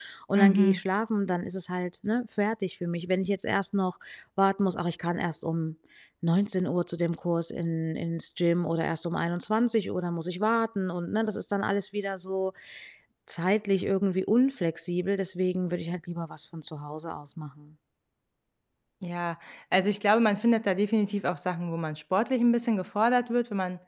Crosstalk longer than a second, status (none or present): none